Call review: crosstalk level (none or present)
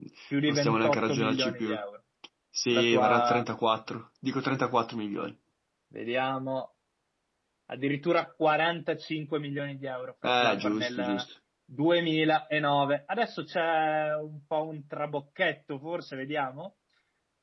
present